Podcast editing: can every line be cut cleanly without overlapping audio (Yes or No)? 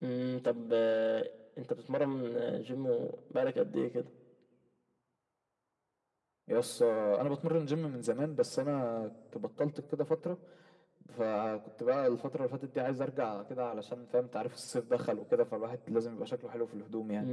Yes